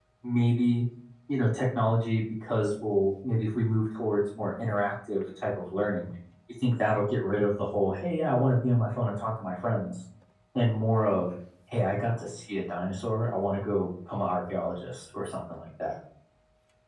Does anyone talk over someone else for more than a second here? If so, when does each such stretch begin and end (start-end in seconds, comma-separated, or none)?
none